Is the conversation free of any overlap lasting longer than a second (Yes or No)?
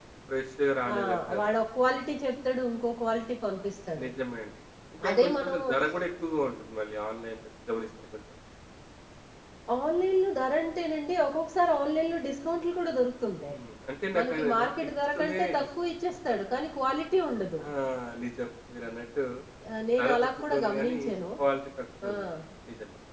No